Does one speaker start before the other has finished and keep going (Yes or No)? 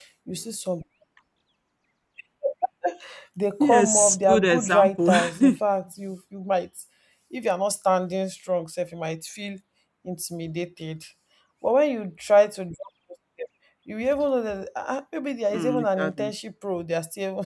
Yes